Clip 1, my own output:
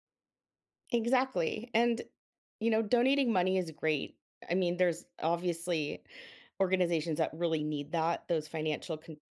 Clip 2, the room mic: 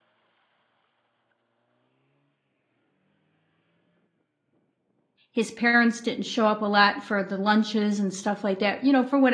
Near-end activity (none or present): present